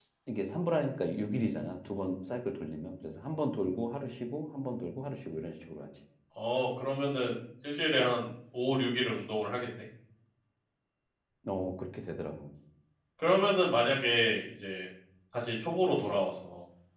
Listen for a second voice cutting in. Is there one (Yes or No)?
No